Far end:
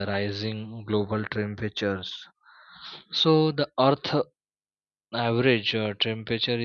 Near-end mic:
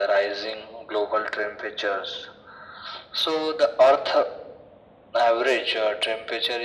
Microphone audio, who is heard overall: echo only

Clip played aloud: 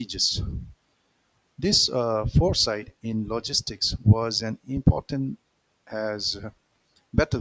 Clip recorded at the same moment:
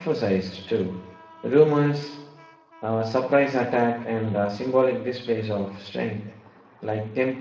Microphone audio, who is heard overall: user only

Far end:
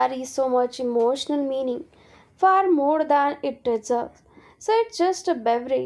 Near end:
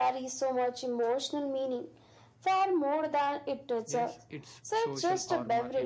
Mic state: both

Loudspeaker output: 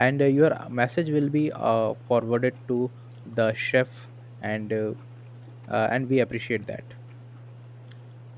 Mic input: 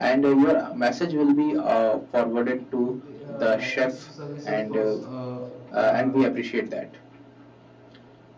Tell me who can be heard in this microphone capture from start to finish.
both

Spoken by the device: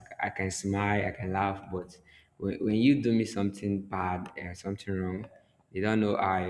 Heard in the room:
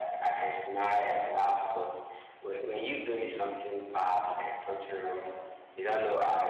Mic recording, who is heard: echo only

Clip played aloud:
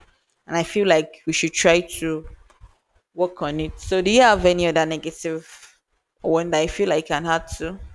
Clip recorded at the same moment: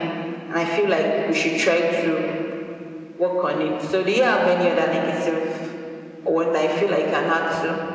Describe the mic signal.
echo only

